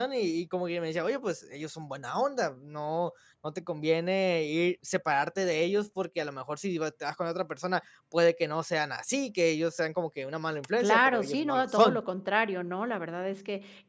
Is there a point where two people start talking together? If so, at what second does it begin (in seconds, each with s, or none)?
10.8 s